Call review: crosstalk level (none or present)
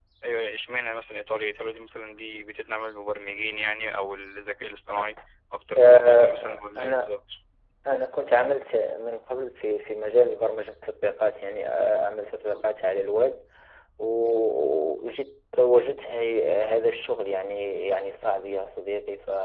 present